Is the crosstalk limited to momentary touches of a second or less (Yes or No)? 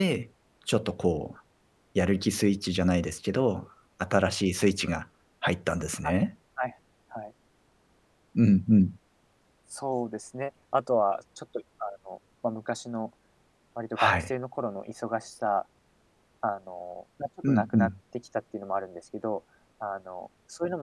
Yes